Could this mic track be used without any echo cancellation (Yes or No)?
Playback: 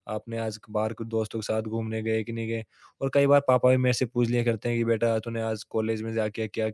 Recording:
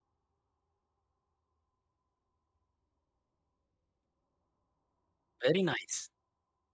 Yes